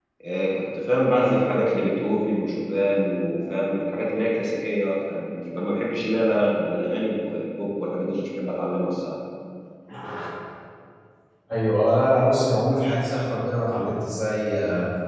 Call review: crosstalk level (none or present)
none